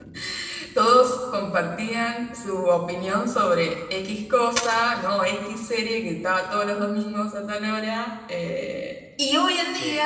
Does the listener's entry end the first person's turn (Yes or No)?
No